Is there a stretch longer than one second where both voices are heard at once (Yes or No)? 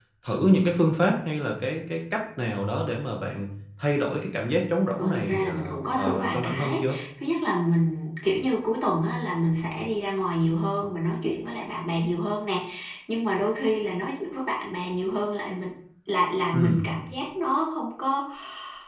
Yes